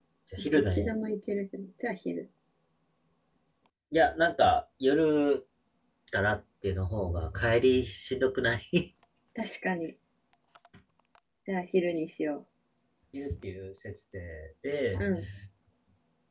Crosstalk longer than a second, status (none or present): none